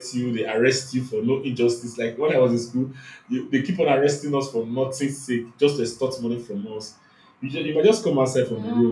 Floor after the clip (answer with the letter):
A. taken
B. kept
B